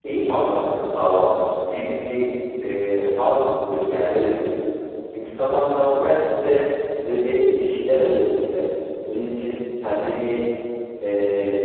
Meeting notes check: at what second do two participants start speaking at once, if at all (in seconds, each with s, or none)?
none